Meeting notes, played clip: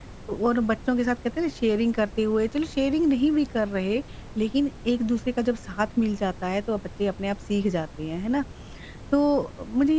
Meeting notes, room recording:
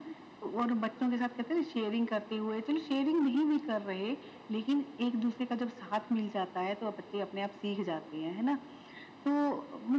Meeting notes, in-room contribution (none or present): none